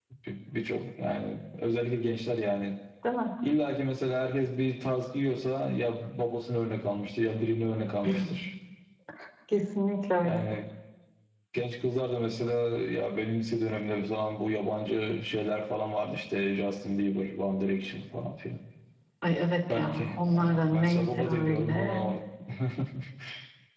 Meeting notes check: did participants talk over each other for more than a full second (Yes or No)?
Yes